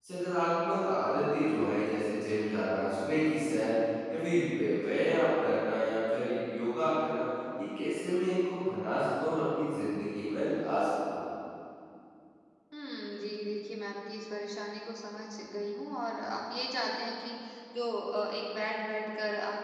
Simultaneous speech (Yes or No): No